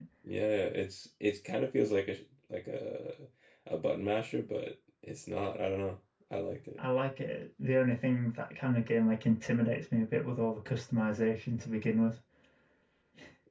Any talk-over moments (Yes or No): No